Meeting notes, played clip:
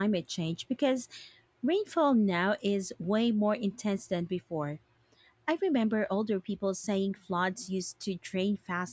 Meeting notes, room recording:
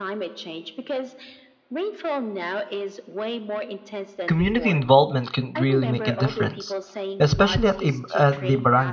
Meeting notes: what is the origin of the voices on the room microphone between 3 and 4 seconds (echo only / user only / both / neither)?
echo only